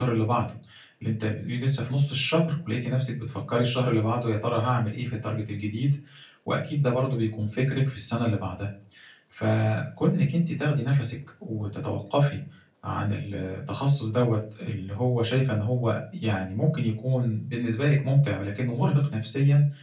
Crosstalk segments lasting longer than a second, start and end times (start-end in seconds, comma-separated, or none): none